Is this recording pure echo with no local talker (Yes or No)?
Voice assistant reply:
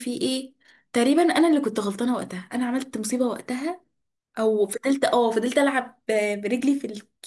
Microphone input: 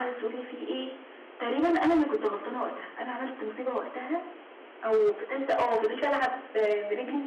Yes